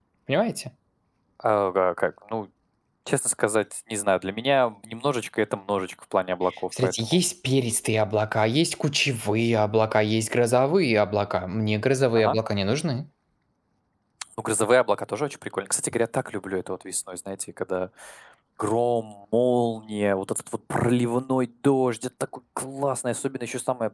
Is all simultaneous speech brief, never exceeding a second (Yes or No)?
Yes